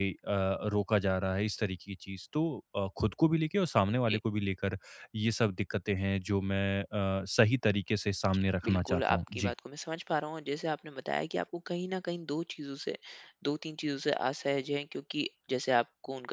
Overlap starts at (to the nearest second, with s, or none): 8 s